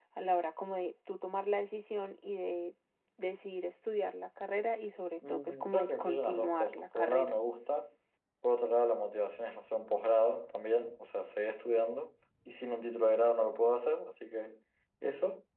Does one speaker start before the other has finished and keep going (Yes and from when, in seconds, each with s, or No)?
Yes, from 5.2 s